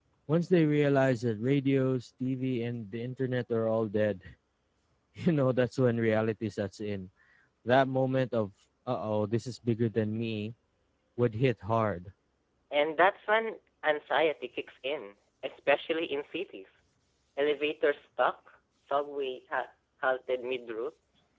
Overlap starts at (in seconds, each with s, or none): none